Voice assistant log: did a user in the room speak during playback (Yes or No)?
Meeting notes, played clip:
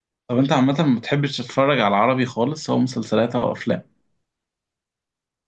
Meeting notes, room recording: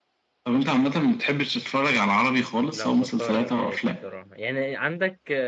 Yes